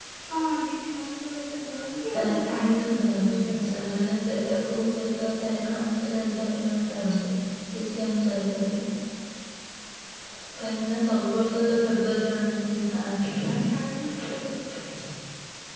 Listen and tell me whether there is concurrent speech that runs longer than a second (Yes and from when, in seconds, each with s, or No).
Yes, from 2.2 s